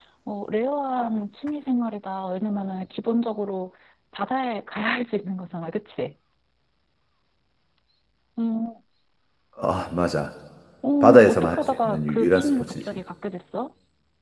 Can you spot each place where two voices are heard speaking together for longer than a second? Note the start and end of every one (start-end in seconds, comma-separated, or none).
11.0-12.9